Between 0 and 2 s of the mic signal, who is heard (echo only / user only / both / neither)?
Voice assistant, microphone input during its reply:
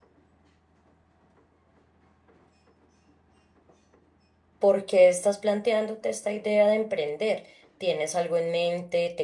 neither